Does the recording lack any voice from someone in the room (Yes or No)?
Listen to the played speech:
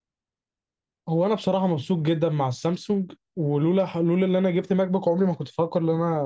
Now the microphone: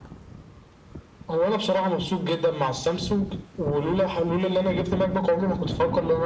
Yes